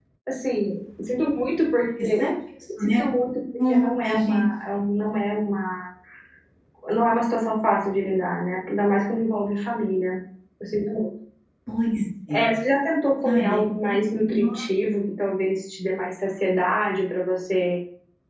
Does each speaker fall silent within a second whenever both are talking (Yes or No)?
No